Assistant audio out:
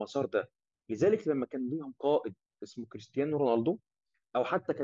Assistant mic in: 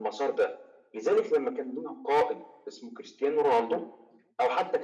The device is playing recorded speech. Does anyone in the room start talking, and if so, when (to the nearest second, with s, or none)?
none